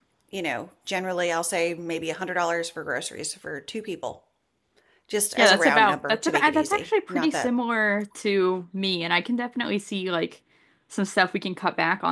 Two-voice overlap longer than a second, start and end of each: 5.4-7.5

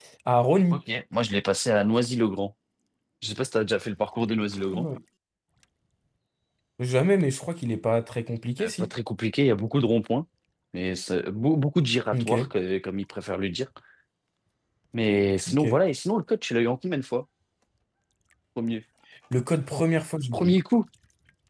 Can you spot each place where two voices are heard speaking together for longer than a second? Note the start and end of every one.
none

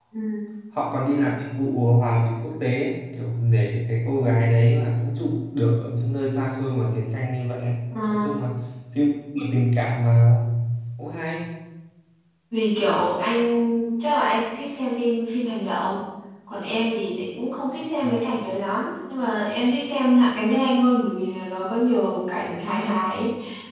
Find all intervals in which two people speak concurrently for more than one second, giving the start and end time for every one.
none

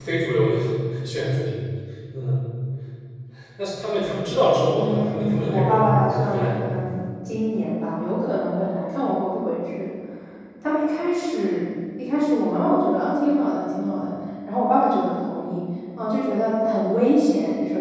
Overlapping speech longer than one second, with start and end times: 4.7-6.7

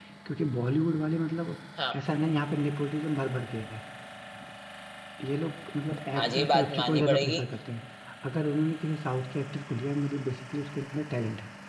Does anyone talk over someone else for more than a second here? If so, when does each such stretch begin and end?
6.2-7.4

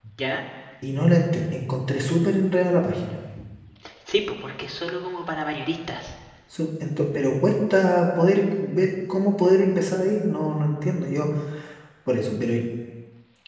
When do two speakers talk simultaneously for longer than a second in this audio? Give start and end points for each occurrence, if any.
none

